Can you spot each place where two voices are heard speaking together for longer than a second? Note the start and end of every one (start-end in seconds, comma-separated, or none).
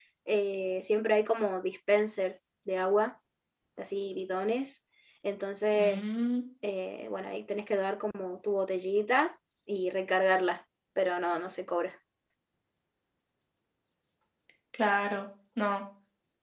none